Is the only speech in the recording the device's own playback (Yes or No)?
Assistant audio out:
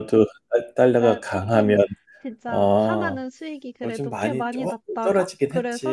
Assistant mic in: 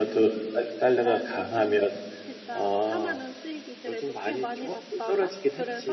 Yes